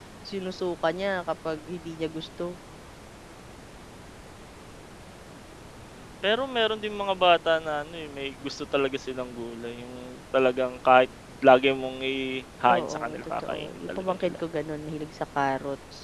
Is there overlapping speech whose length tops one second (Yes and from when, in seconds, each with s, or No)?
Yes, from 12.7 s